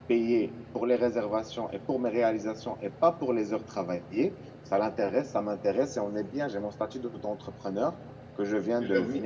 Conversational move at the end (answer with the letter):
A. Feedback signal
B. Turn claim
A